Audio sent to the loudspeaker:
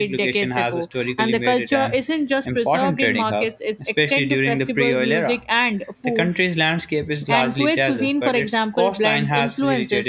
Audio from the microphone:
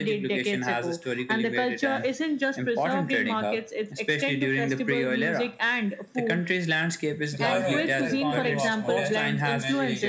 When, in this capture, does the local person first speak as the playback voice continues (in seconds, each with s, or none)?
7.3 s